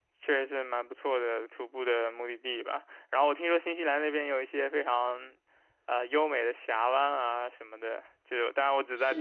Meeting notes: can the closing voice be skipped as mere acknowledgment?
Yes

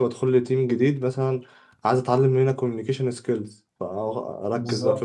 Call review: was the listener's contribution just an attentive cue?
Yes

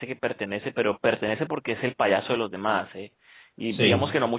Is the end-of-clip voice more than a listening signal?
No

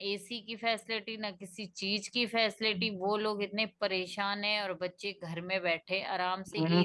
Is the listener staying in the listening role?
No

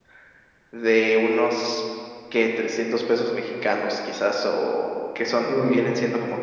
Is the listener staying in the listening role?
Yes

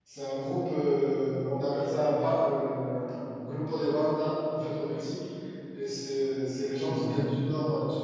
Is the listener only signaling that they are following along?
Yes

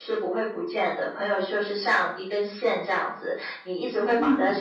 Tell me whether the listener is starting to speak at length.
No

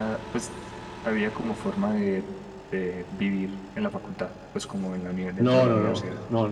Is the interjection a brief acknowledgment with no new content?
No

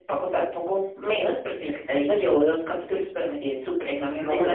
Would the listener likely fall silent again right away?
No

